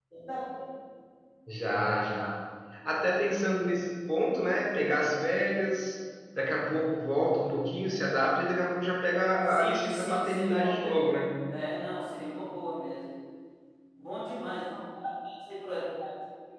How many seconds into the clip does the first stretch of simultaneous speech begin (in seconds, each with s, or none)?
9.5 s